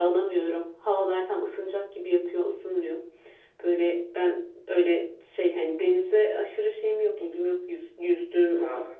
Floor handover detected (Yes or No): No